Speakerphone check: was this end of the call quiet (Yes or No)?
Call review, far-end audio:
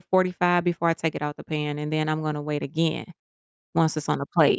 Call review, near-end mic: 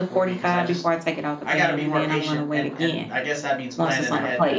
No